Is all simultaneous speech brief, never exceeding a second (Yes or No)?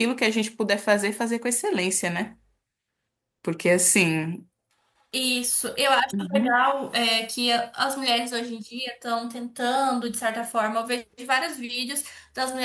Yes